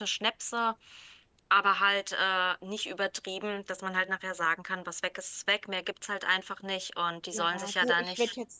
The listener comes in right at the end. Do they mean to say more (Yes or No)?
Yes